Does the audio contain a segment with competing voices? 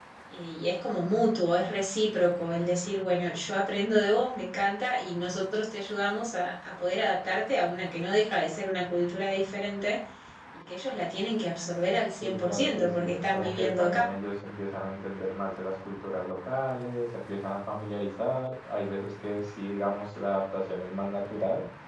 Yes, from 12.2 s

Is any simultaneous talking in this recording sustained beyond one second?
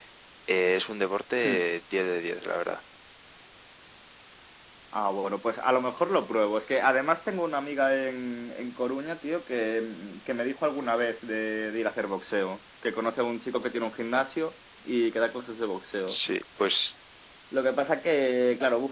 No

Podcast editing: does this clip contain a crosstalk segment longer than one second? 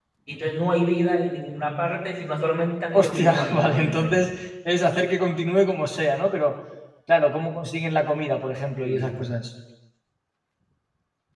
Yes, from 2.9 s

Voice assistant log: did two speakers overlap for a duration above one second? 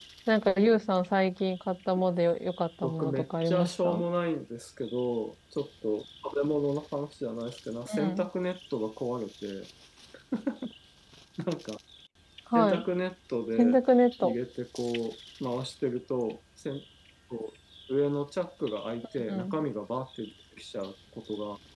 Yes, from 2.8 s

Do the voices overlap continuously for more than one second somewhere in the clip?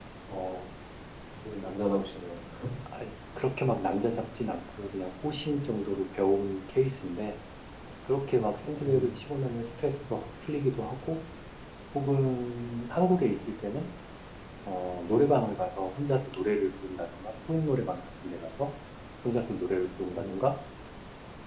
No

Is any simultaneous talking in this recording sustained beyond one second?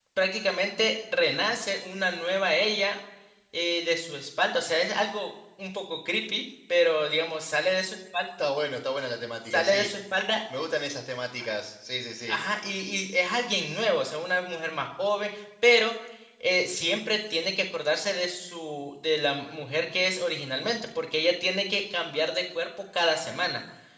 No

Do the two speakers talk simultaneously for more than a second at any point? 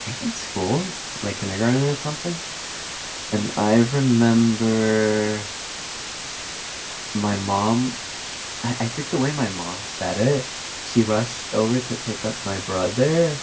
No

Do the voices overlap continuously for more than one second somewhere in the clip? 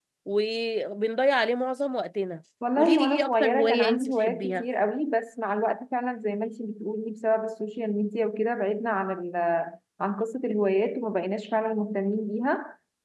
Yes, from 2.6 s

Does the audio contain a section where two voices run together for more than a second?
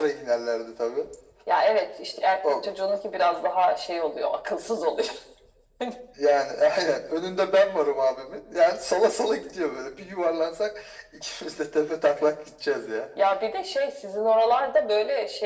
No

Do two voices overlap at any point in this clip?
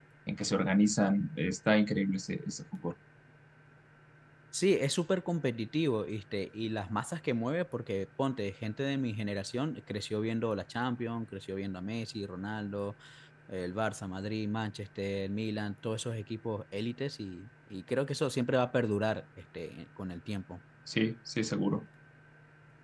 No

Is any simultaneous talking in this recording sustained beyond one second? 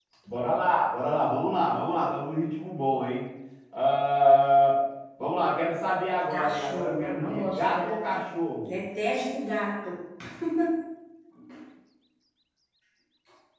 Yes, from 6.3 s

